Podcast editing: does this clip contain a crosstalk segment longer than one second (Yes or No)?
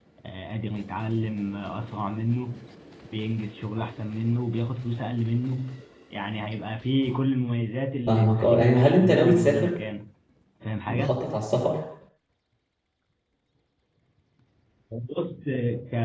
Yes